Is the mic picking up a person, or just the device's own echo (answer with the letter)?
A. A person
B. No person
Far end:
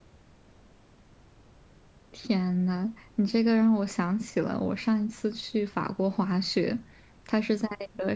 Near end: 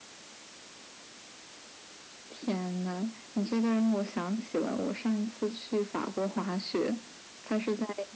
B